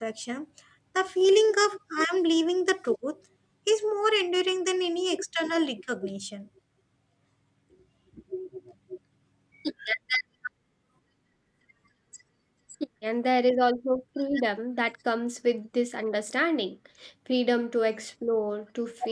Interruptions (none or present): none